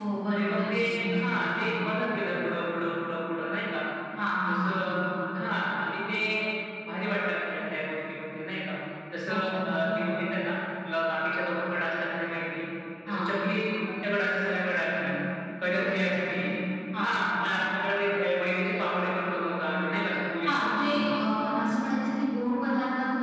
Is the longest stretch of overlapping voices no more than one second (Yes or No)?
No